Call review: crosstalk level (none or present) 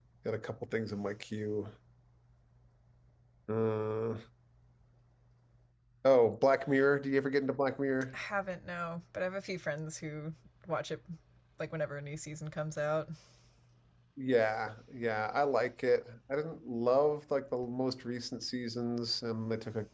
none